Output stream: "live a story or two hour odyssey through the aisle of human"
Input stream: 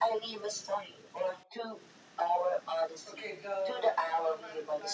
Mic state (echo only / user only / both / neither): both